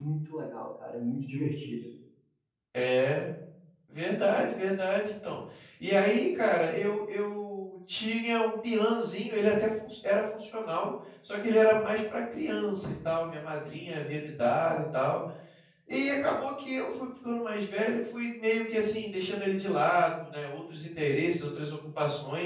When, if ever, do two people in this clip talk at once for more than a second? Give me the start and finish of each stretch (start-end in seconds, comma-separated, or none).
none